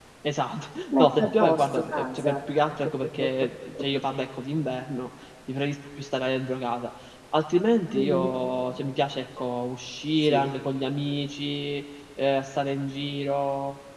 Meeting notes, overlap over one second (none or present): present